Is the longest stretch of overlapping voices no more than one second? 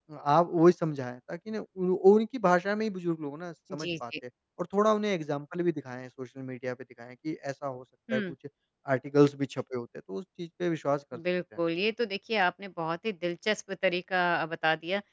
Yes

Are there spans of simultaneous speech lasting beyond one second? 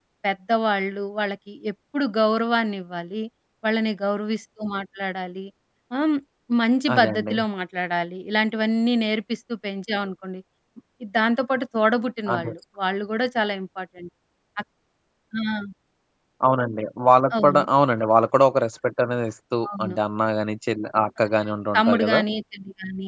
No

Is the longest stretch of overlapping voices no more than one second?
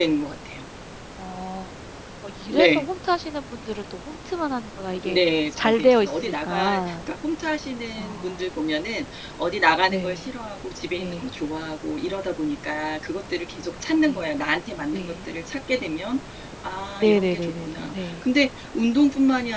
No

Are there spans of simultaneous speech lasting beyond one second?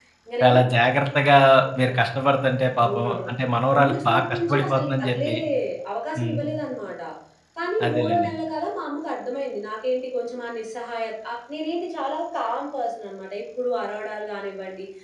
Yes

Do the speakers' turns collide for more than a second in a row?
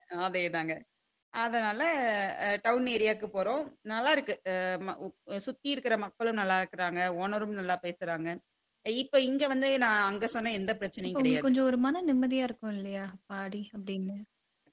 No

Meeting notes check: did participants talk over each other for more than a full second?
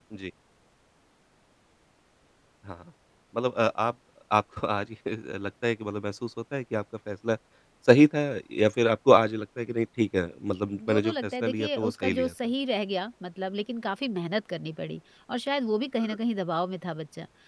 Yes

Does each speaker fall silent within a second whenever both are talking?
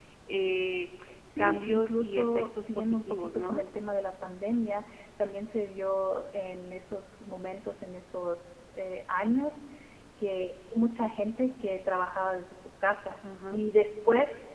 No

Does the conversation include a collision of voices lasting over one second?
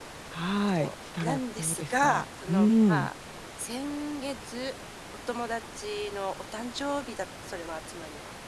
Yes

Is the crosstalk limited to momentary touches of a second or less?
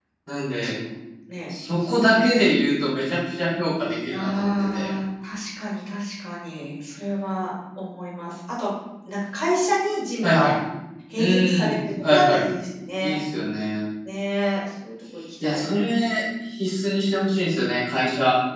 No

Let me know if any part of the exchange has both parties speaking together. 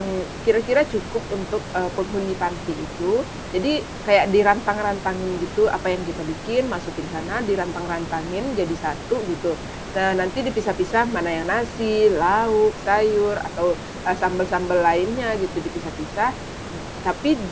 No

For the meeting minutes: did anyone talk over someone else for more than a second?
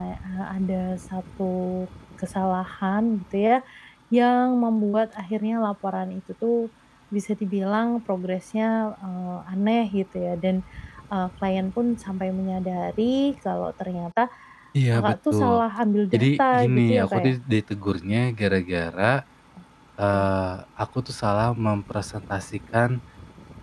Yes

